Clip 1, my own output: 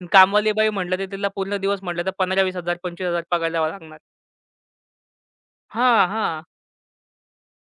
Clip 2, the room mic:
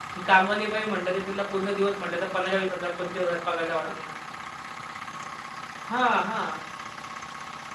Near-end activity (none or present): none